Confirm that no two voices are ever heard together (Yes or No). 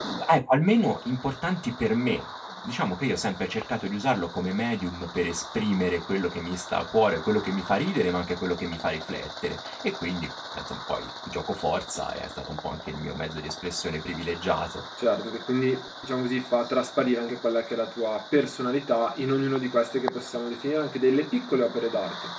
Yes